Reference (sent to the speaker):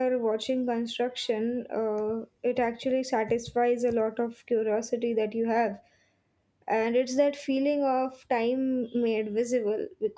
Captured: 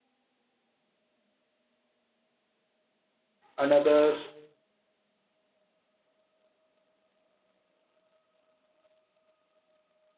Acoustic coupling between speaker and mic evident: No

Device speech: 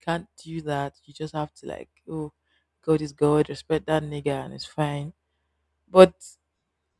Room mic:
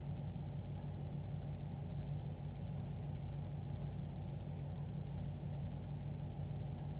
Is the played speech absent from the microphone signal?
Yes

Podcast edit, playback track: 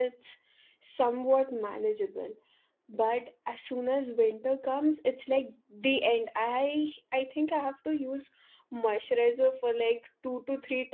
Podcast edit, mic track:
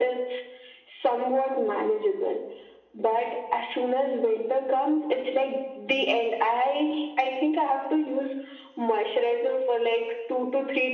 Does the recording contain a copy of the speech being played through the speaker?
Yes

